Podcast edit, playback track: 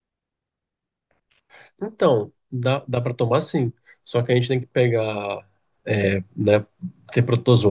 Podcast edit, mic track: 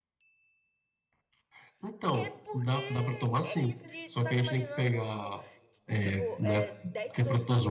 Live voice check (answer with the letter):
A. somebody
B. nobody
A